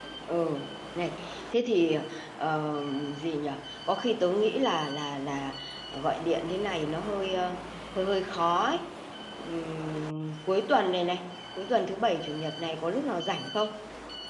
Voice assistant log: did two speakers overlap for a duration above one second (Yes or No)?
No